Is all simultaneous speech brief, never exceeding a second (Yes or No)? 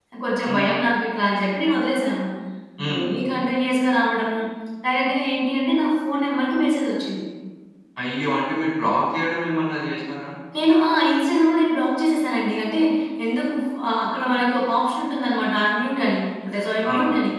Yes